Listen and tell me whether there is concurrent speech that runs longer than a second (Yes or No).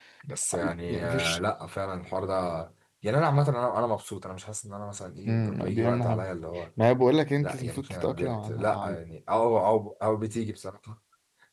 Yes